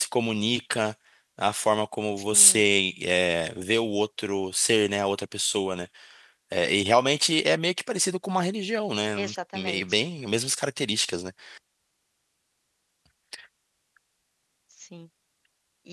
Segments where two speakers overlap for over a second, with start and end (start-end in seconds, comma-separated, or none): none